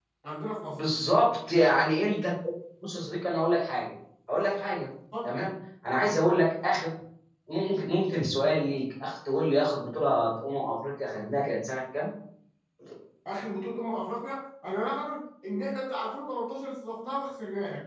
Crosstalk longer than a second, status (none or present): none